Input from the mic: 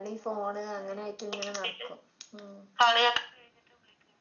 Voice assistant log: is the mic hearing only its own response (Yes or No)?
Yes